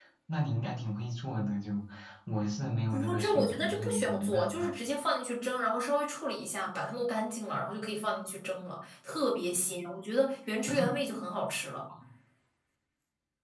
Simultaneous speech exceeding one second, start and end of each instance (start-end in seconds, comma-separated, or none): 2.9-4.7